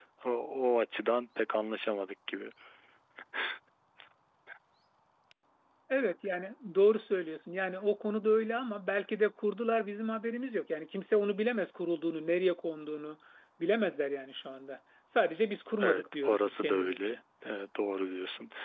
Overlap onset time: 16 s

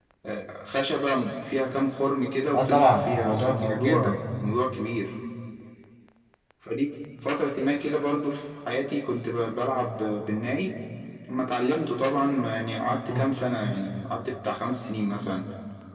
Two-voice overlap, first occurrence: 3 s

